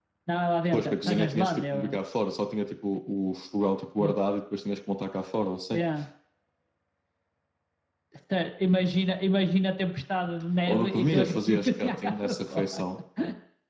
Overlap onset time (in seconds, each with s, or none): 0.7 s